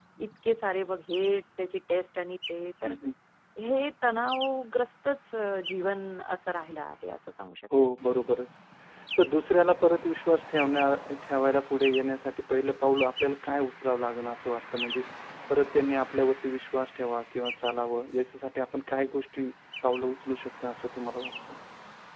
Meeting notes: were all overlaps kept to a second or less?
Yes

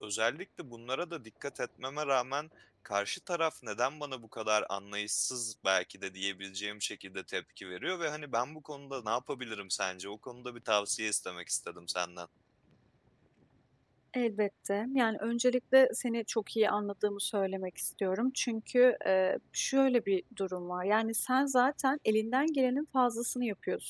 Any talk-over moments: No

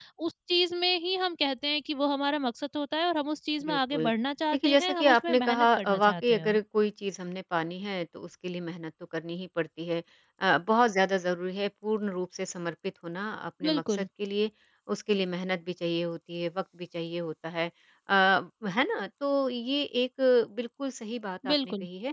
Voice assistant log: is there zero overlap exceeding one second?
No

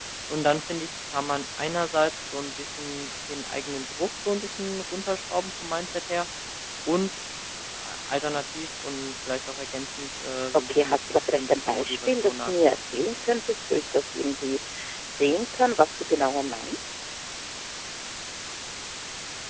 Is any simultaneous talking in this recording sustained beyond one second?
Yes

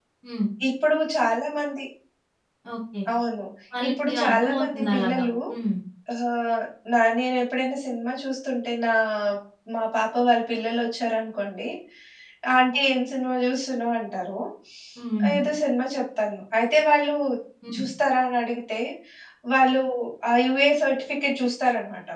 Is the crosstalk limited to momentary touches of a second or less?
No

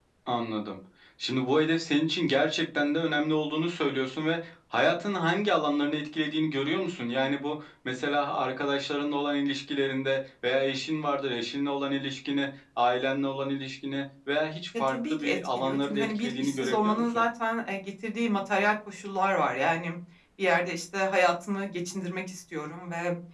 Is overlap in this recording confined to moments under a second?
No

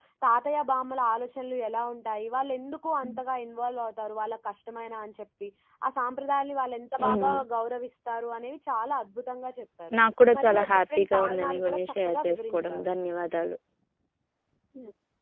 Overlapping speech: Yes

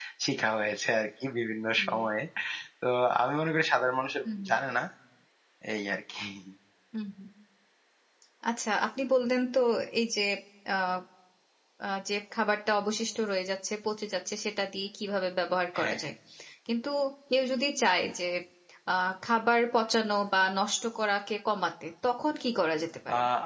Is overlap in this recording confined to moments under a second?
Yes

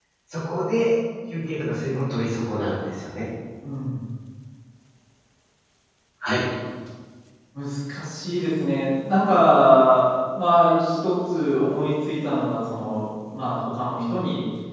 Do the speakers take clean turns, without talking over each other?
Yes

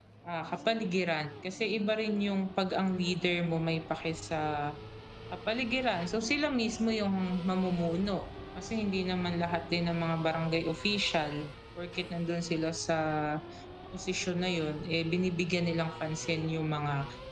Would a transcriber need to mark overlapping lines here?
No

